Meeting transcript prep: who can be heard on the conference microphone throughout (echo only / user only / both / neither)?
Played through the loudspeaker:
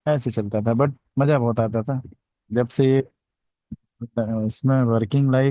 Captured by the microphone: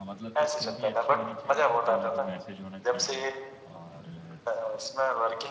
both